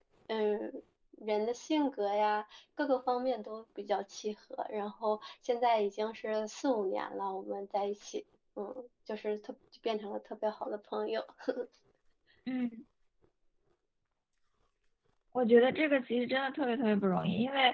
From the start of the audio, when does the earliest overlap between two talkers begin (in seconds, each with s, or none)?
none